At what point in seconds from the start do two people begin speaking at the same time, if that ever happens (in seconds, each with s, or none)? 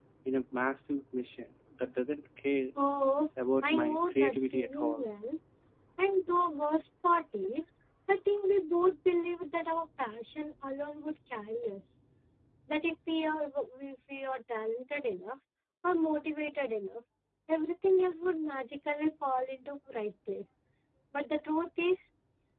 3.6 s